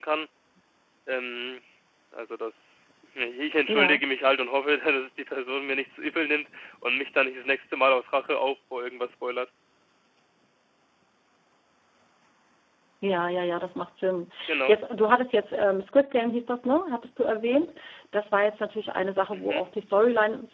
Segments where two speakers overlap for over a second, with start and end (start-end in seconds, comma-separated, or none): none